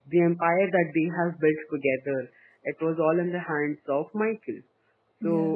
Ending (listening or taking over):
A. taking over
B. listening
B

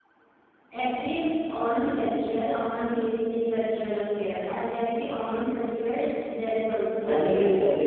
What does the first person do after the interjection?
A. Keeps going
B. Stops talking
B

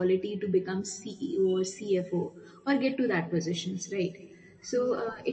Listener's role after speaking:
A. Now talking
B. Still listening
B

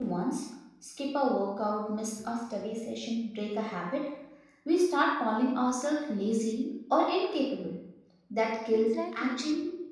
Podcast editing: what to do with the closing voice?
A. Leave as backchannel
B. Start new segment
A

